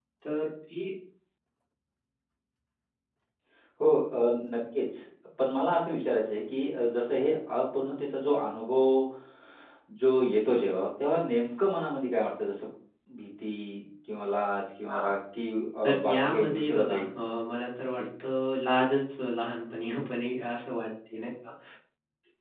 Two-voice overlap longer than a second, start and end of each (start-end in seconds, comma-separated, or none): 15.8-17.1